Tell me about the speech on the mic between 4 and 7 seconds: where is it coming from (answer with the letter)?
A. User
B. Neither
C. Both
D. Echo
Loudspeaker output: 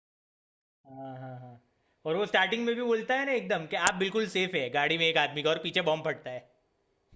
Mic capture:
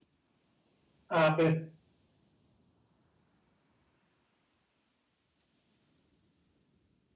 B